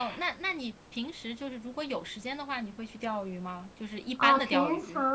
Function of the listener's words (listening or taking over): taking over